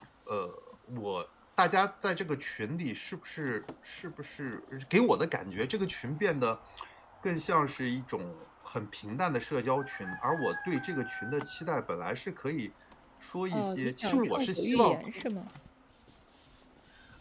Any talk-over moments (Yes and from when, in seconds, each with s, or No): Yes, from 13.5 s